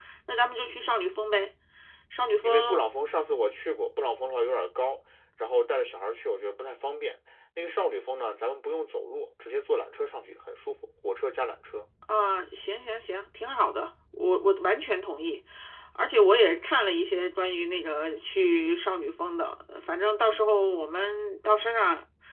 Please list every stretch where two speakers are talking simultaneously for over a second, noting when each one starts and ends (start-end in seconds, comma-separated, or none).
none